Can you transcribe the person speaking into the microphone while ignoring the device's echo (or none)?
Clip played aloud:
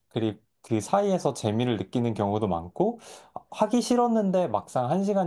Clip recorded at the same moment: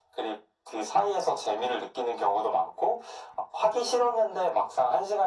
none